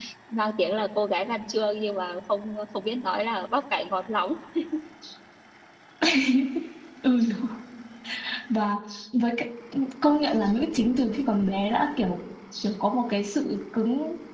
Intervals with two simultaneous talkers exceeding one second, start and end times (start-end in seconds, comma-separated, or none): none